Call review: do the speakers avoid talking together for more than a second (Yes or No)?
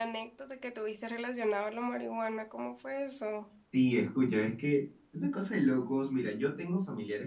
Yes